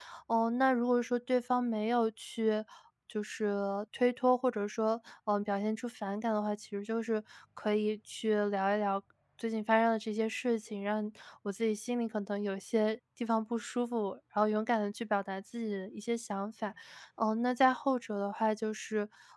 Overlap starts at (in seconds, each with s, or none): none